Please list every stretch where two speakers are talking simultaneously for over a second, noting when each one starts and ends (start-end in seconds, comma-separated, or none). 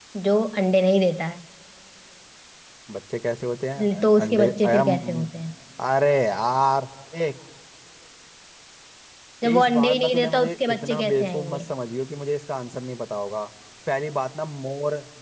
3.8-5.3, 9.5-11.7